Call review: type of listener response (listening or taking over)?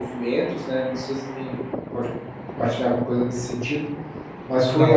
listening